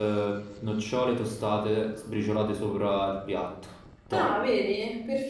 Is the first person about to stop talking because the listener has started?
Yes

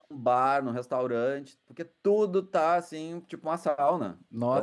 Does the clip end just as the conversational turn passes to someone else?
Yes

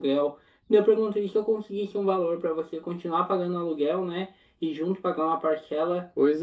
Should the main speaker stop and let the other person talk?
No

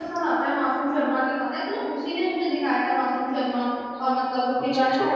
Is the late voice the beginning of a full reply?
No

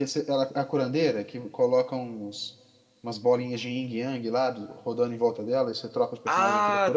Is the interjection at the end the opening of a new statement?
Yes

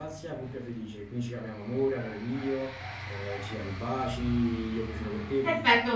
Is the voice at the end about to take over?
Yes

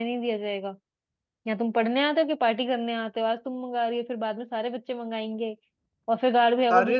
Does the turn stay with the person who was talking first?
Yes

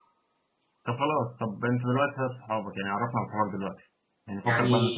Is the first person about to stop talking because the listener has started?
No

